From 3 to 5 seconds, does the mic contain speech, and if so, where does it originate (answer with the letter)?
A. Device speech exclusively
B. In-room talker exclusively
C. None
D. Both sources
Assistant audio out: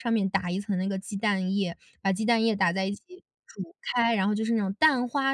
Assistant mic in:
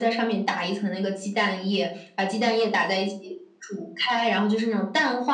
A